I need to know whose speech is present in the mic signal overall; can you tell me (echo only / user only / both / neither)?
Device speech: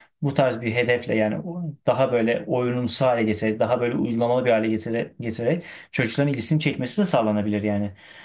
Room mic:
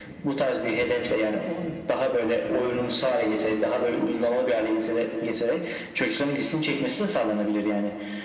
echo only